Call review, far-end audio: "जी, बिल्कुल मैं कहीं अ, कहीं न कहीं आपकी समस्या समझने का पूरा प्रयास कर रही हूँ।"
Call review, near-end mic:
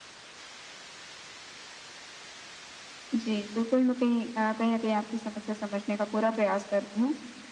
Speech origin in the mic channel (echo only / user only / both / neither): echo only